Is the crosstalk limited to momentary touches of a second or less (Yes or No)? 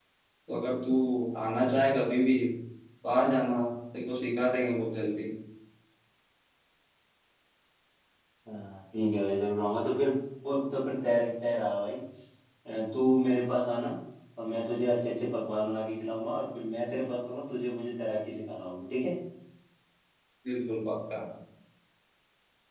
Yes